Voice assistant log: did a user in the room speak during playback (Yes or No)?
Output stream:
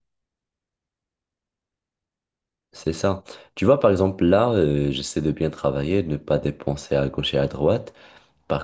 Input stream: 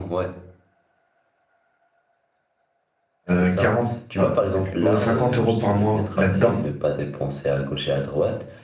Yes